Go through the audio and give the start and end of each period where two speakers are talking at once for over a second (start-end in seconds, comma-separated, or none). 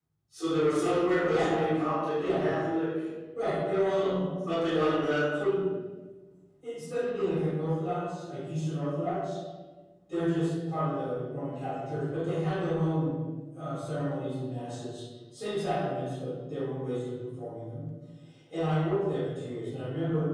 none